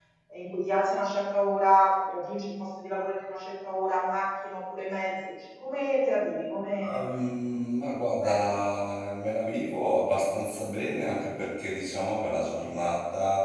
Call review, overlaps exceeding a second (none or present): none